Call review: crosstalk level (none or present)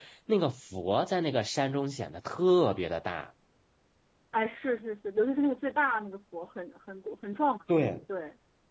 none